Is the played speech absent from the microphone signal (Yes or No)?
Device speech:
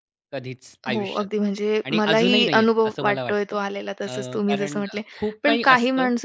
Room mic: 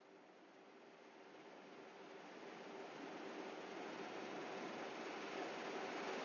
Yes